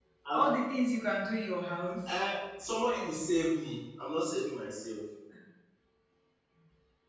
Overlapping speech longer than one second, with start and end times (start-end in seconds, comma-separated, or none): none